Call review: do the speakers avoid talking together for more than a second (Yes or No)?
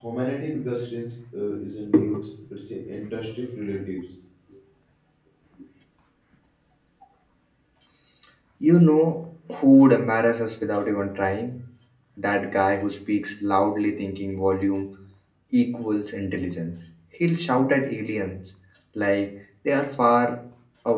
Yes